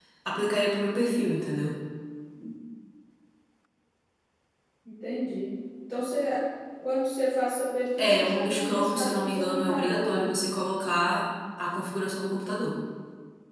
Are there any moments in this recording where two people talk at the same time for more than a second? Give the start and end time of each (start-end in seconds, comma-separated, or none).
8.0-10.3